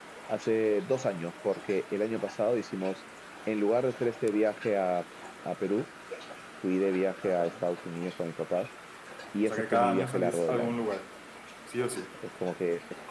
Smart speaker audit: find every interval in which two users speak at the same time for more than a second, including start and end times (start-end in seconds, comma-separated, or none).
9.5-10.9